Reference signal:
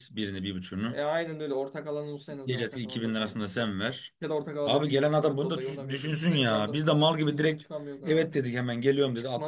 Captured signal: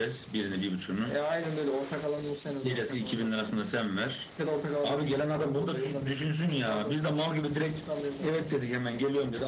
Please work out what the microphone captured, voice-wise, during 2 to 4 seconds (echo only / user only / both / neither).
echo only